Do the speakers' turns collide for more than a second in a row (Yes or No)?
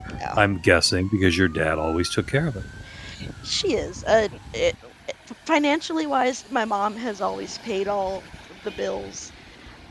No